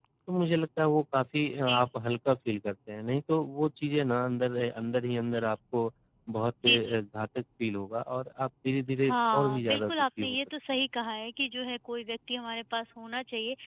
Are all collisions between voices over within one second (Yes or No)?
No